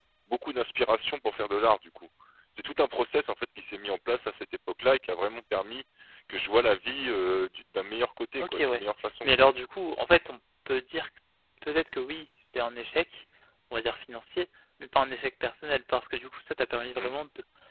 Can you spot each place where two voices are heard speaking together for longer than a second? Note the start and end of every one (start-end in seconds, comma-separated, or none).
none